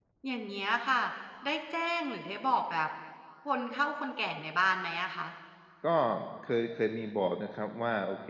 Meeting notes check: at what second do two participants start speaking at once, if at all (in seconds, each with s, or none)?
none